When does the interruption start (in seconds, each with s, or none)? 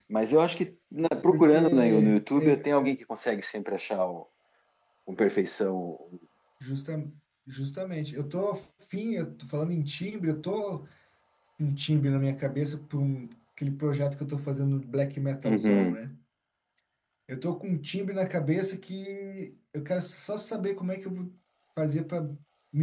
1.3 s